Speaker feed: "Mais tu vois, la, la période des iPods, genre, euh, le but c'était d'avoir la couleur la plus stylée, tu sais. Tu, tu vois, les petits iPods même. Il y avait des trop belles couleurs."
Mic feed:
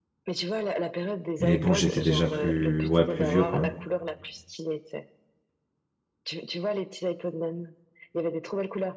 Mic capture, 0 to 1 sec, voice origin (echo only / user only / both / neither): echo only